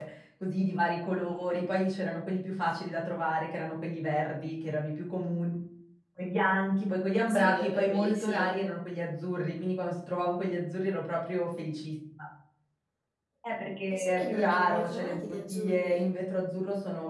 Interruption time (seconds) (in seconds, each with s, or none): 7.3 s